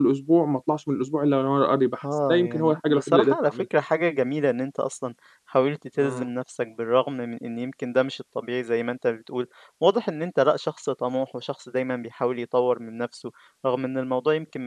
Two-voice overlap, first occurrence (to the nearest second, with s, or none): 2 s